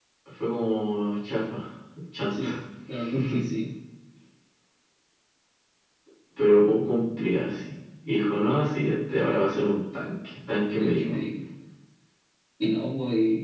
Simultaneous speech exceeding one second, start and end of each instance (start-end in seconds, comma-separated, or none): none